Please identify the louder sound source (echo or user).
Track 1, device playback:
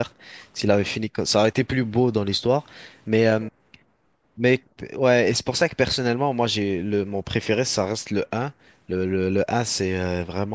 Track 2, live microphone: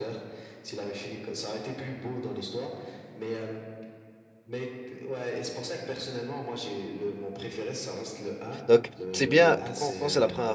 user